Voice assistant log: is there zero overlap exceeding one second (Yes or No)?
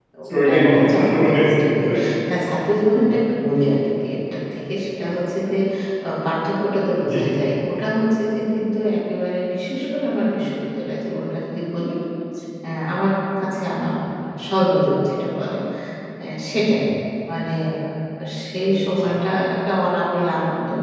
No